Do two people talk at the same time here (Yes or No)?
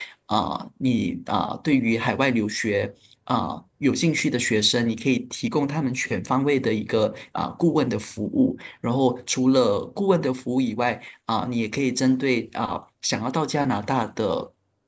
No